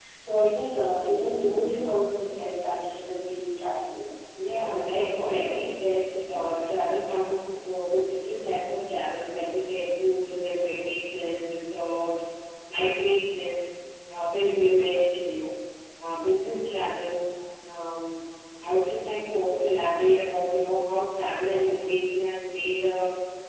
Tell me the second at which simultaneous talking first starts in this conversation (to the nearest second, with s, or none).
5 s